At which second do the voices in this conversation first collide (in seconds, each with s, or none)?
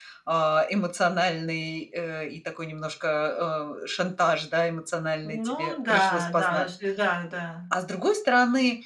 5.2 s